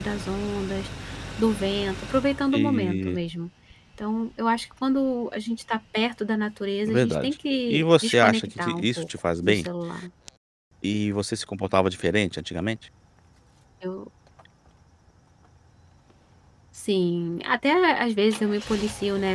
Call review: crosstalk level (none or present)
present